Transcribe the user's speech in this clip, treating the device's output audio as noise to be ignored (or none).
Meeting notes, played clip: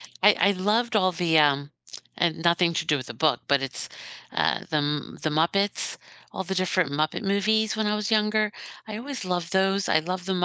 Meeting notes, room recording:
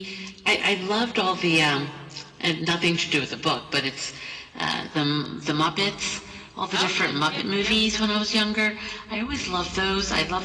Oh, yeah, yeah, yep, yep.